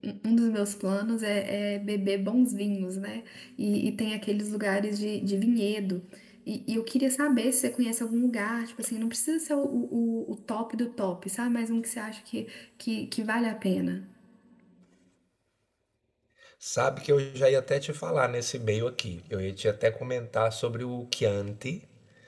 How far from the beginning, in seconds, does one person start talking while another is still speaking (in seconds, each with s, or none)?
none